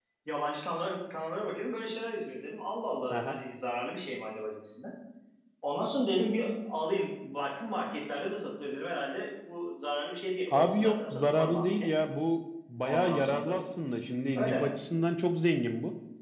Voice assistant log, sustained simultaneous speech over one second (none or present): present